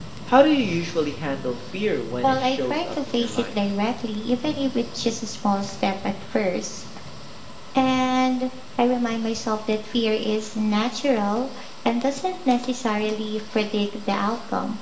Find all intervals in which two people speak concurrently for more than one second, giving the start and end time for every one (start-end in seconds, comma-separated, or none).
2.2-3.6